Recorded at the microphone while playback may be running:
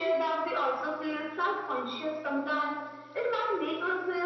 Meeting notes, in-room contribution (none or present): none